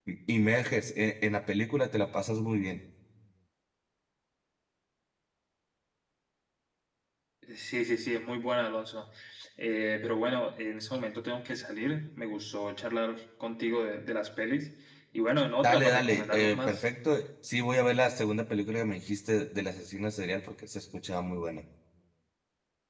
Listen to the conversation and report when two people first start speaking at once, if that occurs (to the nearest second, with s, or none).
16 s